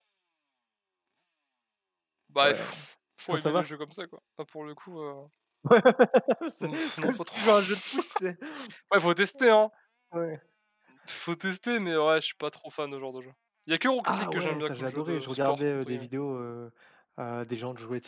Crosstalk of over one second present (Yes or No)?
Yes